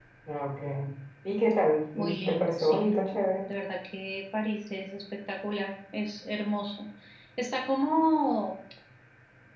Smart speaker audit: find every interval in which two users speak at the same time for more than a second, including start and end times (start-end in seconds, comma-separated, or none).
2.0-3.5